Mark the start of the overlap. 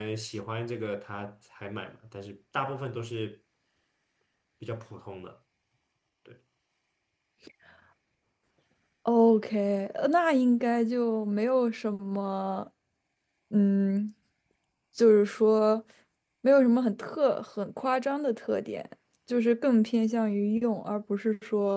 none

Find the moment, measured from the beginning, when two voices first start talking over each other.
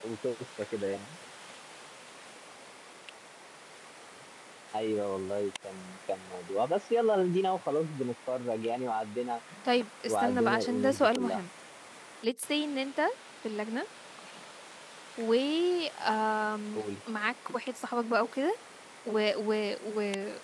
10.1 s

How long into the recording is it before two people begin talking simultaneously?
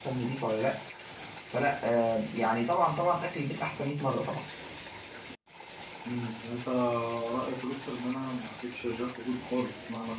none

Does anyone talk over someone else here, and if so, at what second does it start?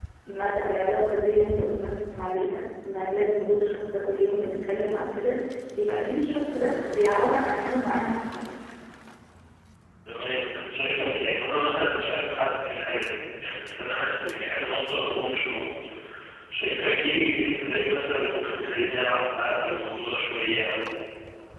none

